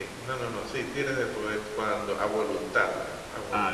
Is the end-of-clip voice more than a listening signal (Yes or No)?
Yes